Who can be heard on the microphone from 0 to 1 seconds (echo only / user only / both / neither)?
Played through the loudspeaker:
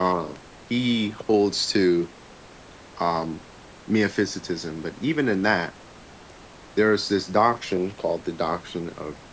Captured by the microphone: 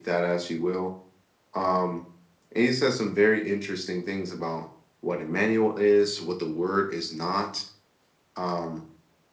user only